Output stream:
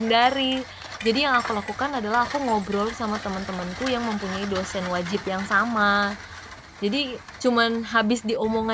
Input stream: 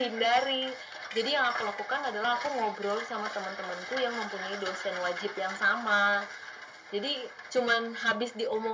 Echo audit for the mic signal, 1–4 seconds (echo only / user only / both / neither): echo only